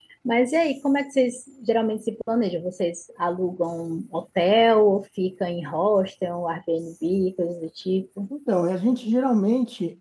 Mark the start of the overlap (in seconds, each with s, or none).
none